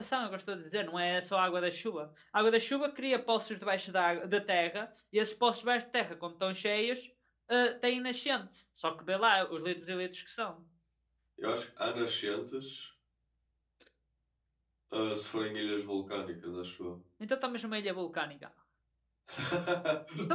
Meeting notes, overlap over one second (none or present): none